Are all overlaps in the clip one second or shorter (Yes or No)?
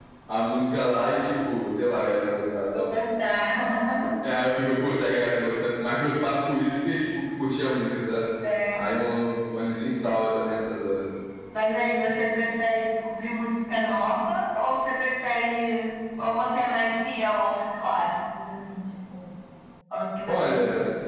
Yes